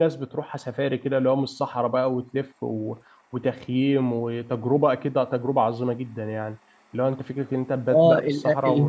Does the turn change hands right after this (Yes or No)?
Yes